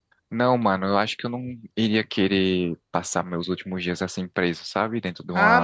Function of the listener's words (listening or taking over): taking over